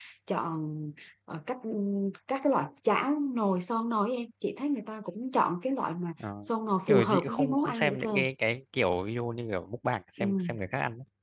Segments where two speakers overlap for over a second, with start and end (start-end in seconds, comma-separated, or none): 6.9-8.2